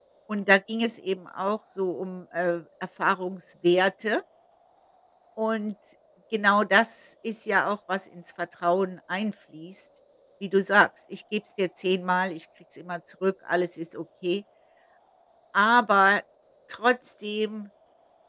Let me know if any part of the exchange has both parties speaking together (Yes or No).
No